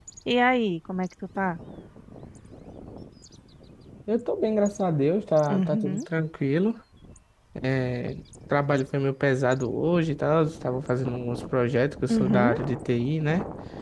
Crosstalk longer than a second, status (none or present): none